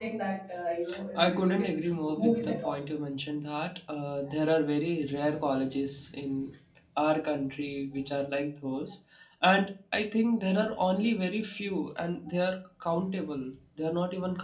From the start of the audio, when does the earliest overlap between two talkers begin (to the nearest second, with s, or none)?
1 s